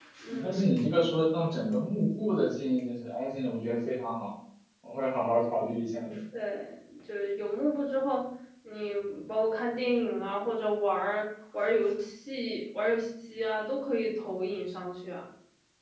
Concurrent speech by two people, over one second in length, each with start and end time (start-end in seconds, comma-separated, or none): none